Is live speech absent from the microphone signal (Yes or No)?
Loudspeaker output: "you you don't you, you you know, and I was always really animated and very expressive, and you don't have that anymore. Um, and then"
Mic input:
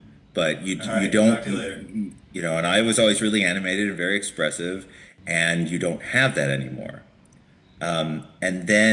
No